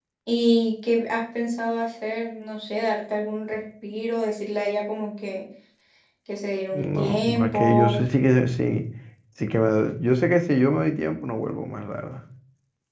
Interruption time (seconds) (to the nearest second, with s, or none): 7 s